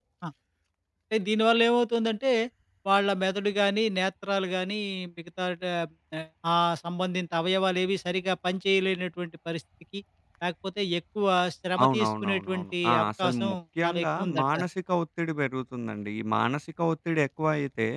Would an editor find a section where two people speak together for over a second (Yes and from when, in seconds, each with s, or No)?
Yes, from 11.8 s